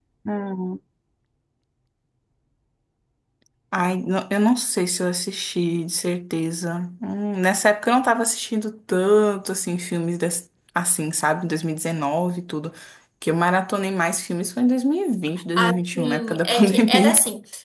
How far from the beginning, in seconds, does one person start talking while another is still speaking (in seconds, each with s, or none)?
15.6 s